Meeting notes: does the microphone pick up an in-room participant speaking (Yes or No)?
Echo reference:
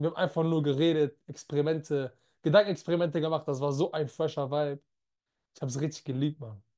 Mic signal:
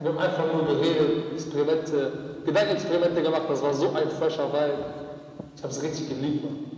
No